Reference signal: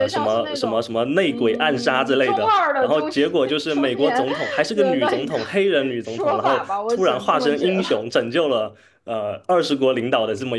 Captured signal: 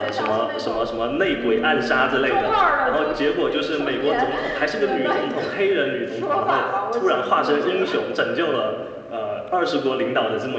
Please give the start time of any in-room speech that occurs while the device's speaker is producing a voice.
none

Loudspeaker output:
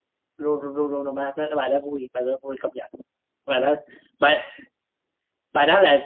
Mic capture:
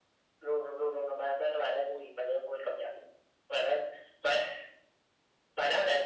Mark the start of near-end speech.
none

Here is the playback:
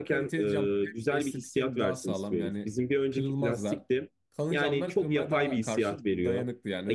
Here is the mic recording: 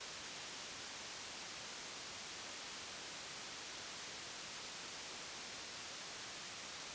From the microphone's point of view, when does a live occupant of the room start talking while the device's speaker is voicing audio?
none

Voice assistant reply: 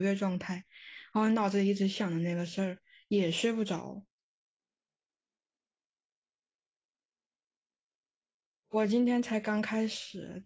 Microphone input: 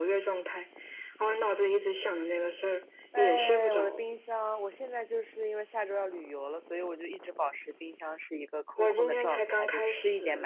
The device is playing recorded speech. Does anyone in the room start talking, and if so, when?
3.1 s

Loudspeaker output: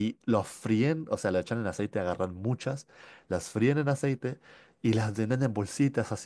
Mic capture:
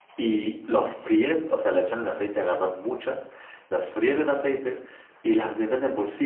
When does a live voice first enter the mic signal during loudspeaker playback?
none

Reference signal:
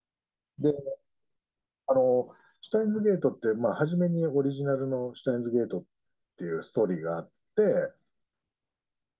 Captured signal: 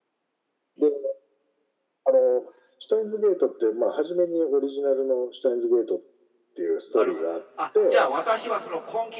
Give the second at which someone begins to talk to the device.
6.9 s

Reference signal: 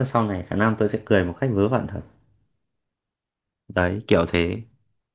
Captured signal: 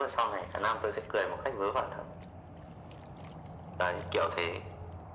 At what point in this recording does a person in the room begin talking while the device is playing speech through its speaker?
none

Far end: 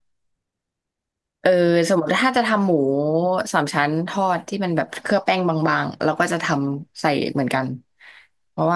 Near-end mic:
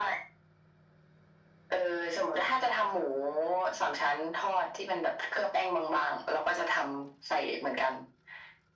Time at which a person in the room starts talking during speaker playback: none

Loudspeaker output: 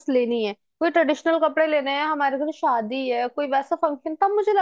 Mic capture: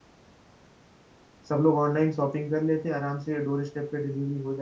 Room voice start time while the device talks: 1.5 s

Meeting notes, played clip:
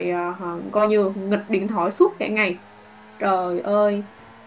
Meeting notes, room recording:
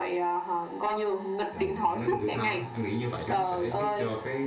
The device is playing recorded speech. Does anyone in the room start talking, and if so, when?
1.5 s

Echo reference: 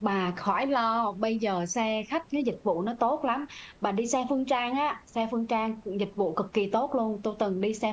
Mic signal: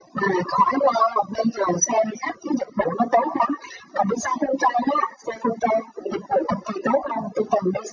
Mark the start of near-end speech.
none

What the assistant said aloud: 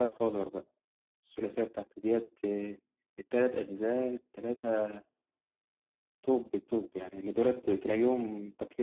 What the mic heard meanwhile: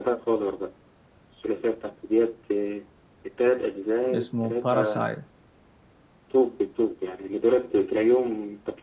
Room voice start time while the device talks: 4.1 s

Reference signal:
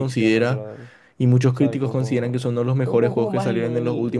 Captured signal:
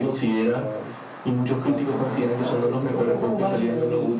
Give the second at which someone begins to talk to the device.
2.3 s

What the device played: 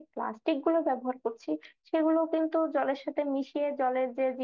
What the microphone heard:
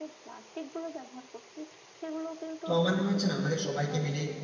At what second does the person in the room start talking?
2.6 s

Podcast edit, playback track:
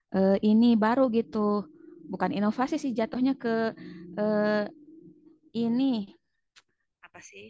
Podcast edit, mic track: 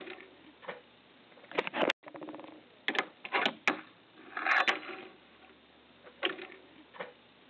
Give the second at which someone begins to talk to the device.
none

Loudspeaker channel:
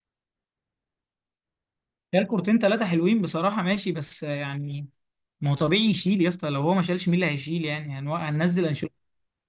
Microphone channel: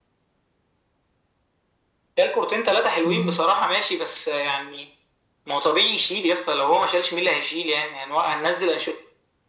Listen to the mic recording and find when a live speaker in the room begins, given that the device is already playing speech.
3.0 s

